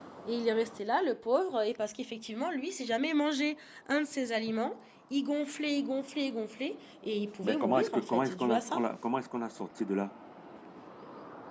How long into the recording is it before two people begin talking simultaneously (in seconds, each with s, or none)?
7.4 s